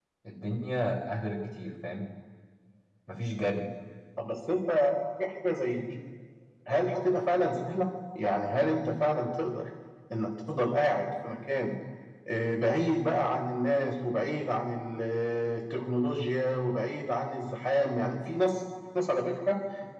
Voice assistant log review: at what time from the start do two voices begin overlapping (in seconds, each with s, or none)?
none